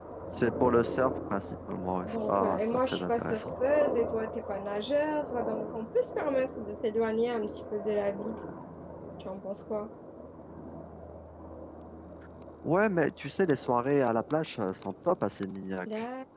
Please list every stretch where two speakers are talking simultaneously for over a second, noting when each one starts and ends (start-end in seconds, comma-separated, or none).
2.0-3.4